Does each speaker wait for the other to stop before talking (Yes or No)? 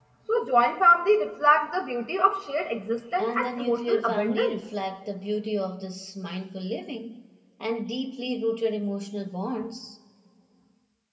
No